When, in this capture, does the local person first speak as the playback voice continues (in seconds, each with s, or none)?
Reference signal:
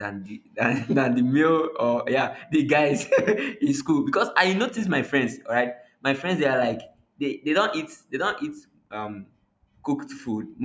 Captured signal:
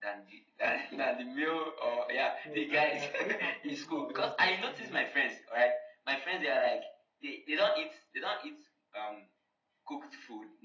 2.4 s